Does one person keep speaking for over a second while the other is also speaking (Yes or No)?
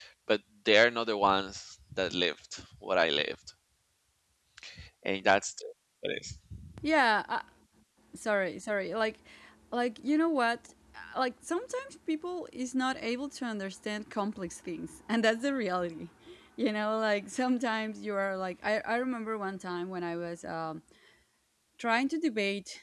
No